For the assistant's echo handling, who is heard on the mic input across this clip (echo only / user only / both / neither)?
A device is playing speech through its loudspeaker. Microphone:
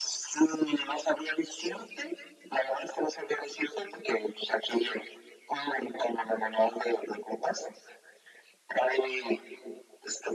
echo only